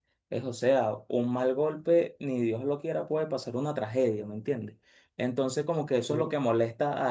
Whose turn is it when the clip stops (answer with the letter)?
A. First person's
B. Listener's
A